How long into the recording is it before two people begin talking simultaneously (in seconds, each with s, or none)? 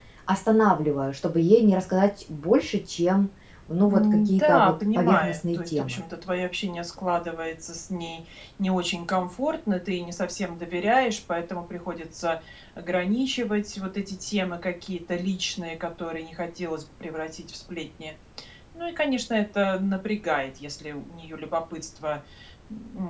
3.9 s